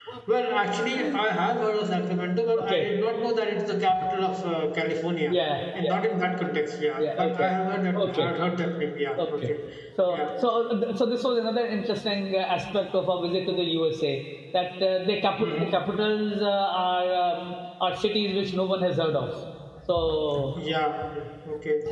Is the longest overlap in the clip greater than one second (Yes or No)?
No